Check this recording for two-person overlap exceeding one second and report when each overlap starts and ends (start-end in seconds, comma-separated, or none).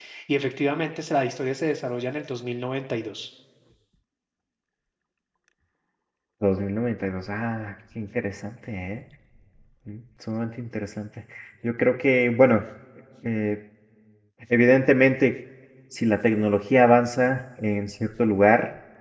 none